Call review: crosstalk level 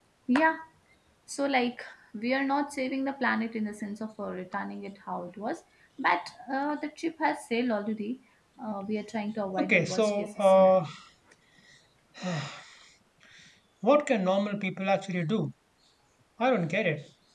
present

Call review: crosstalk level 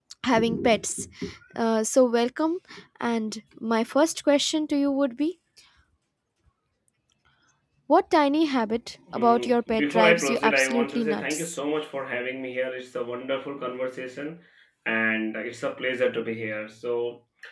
present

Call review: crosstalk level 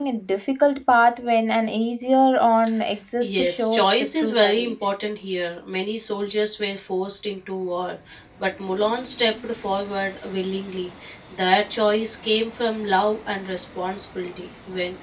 present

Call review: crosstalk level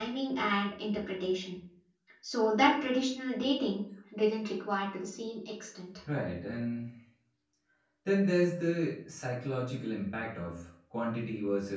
none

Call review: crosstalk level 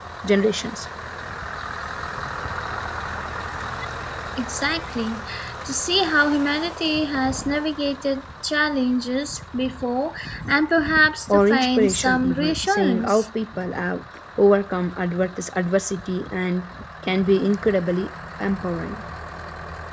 present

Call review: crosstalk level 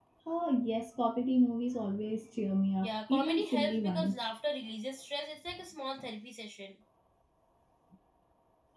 present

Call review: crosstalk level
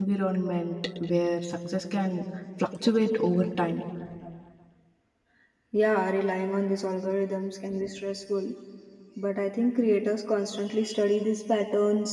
none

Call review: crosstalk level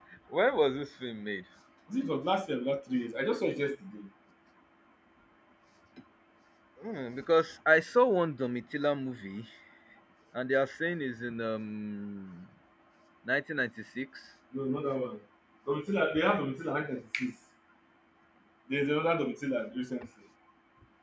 none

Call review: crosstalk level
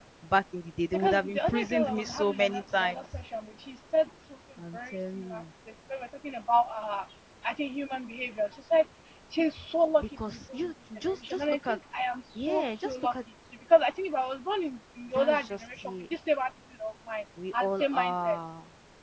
present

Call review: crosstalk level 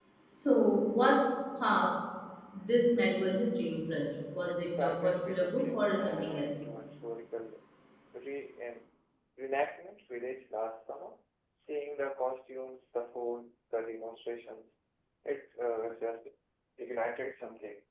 present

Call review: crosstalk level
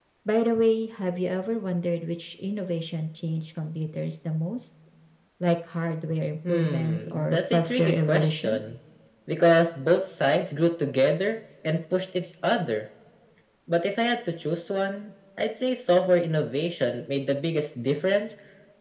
present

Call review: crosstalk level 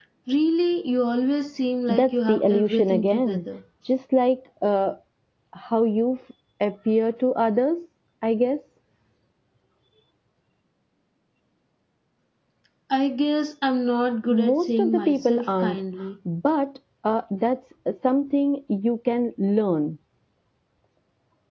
present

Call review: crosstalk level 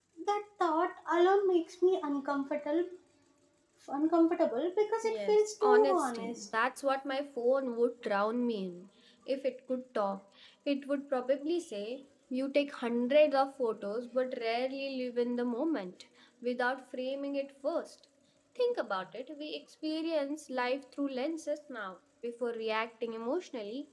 present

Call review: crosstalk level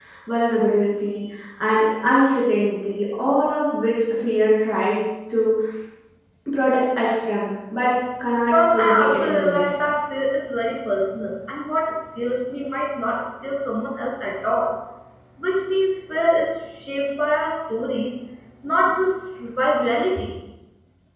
present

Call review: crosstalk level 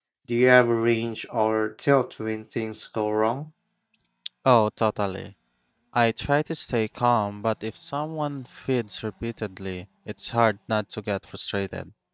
none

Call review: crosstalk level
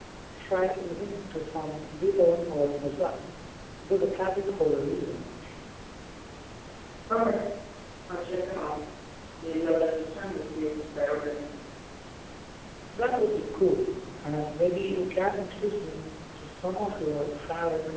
none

